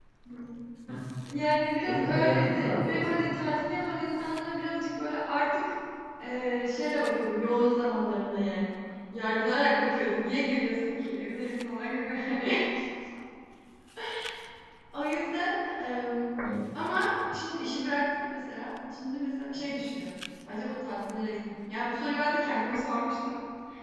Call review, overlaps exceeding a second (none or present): present